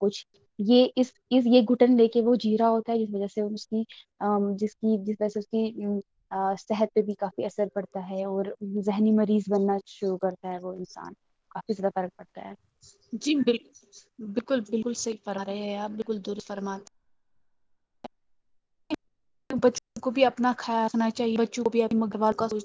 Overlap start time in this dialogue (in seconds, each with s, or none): none